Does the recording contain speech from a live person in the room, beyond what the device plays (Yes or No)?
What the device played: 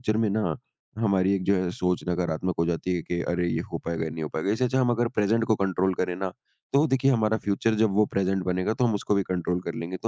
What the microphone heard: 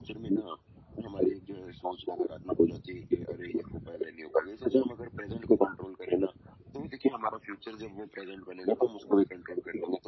No